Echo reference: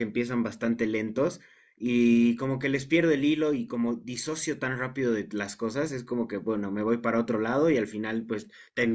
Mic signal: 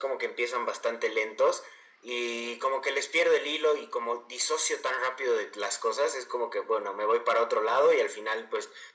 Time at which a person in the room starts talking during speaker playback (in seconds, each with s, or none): none